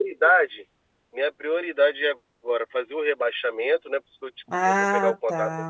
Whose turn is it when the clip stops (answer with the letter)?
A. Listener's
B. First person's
A